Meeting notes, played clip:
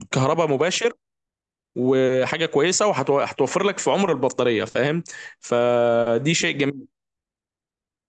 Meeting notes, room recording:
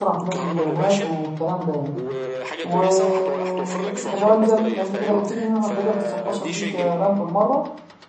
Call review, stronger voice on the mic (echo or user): user